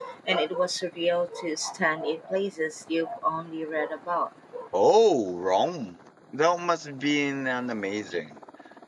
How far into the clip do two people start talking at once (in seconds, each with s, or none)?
none